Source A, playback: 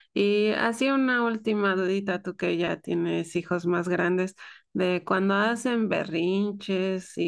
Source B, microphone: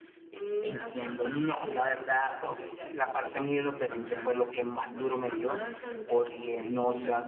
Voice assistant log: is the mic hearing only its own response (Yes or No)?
No